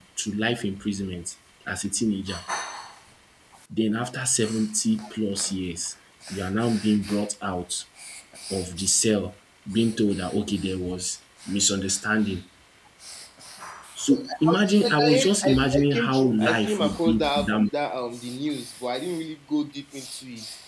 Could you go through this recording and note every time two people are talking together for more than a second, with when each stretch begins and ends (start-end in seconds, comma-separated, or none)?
14.1-17.5